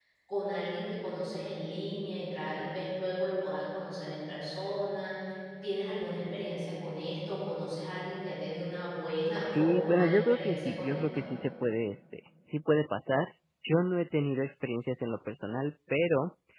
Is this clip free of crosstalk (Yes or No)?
No